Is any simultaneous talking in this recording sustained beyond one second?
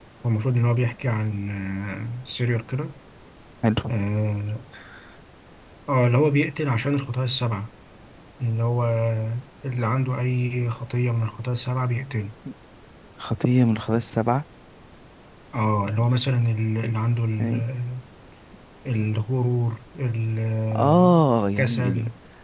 No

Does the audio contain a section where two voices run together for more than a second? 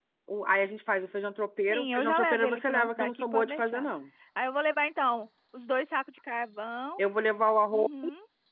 Yes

